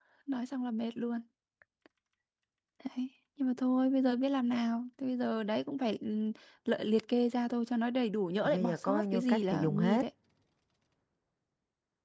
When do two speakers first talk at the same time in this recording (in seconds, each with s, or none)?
8.4 s